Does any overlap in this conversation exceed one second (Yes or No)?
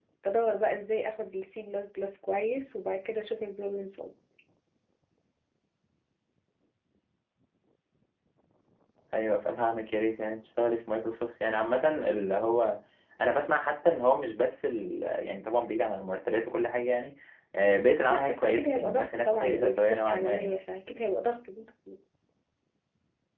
Yes